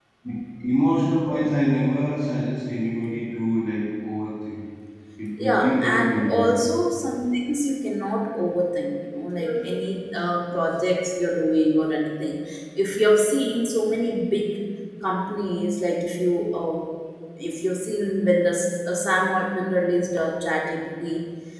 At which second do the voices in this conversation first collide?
5.4 s

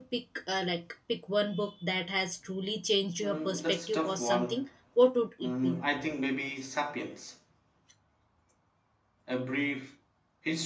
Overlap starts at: 3.2 s

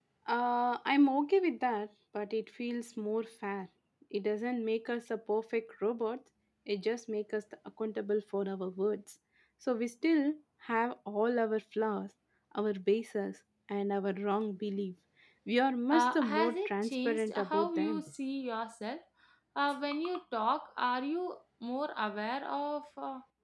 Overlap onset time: 15.9 s

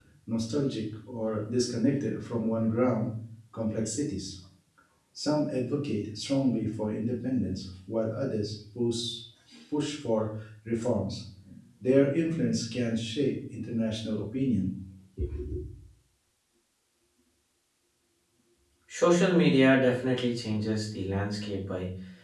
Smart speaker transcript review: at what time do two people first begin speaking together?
none

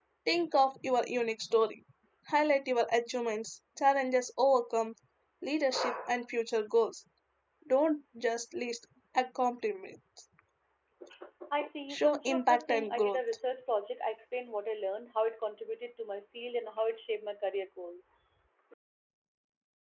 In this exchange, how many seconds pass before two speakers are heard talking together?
11.9 s

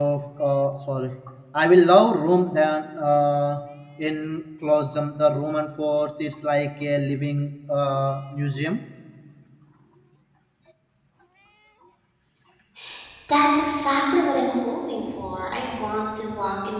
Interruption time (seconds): none

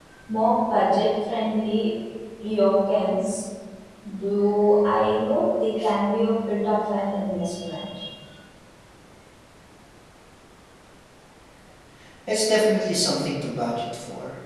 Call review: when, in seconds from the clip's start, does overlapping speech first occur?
none

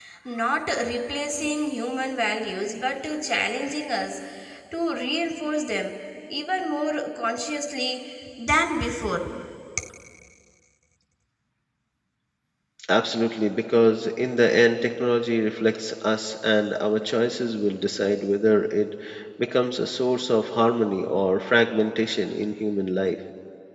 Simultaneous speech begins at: none

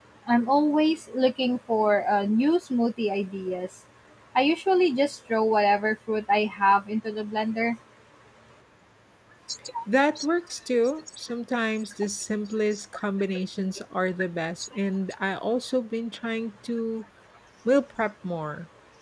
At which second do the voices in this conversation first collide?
none

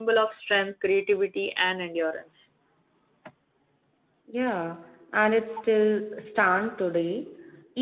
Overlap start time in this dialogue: none

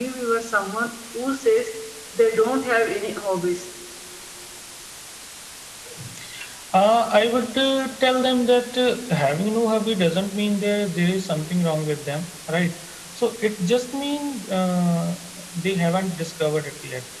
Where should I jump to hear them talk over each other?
none

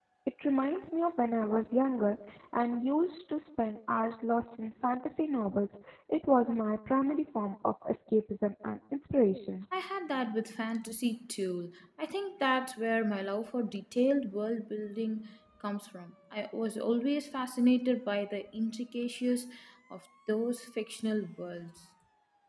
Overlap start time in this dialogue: none

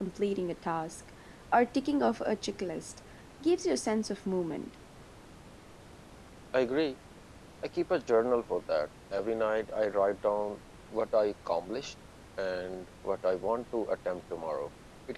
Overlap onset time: none

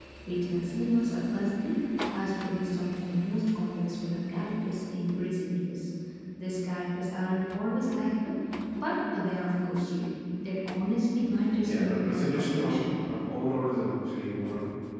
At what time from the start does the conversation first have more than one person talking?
11.6 s

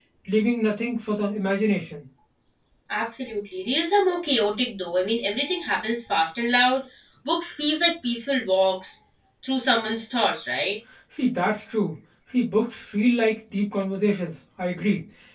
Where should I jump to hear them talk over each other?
none

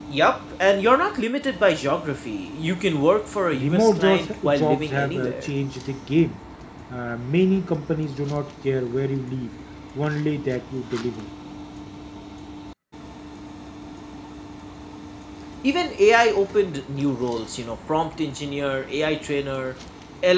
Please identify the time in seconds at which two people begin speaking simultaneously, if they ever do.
3.5 s

